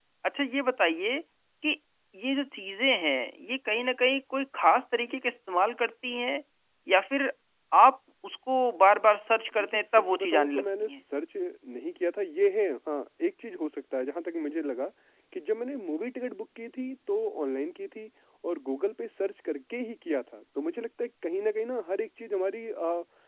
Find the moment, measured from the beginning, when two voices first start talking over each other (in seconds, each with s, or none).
9.5 s